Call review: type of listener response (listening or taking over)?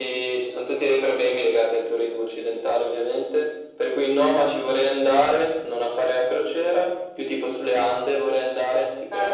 taking over